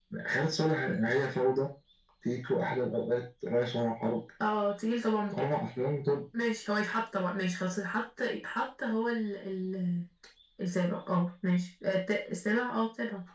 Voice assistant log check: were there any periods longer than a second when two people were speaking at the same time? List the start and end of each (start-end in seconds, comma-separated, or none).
none